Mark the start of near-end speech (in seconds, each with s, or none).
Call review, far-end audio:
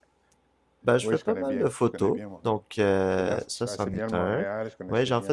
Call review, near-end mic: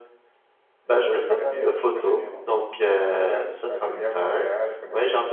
none